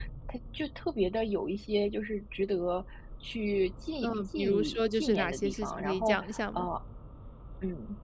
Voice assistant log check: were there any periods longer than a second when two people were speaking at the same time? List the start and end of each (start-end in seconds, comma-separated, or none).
4.0-6.6